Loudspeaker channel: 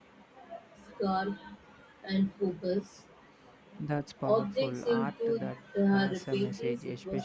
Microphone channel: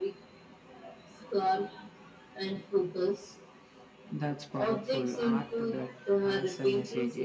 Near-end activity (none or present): none